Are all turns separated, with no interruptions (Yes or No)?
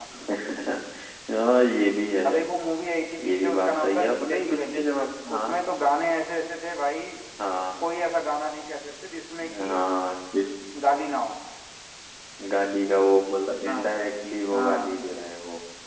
No